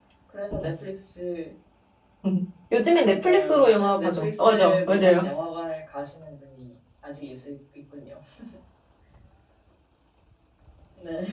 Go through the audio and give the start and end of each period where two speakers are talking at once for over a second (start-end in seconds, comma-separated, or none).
3.0-5.2